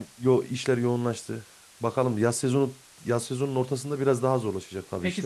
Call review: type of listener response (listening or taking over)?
taking over